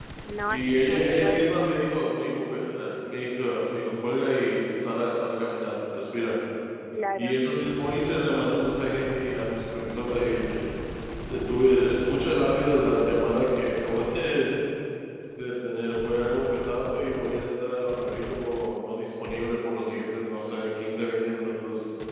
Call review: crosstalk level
present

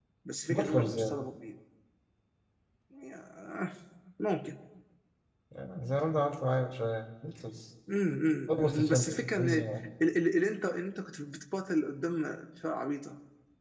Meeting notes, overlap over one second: present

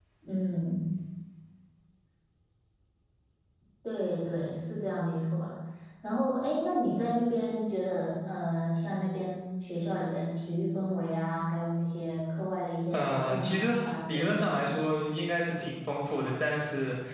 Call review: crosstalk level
present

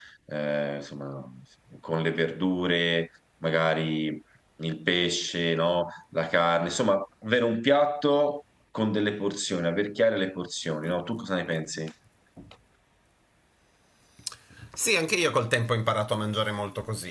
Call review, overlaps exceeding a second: none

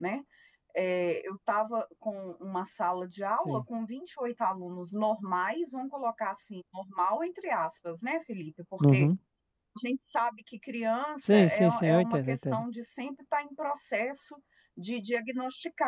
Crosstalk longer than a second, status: present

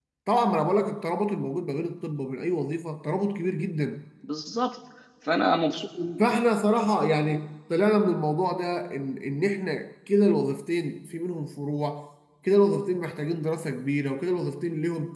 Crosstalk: none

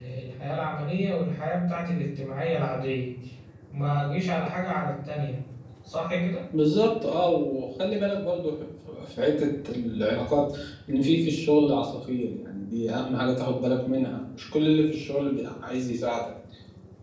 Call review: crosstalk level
none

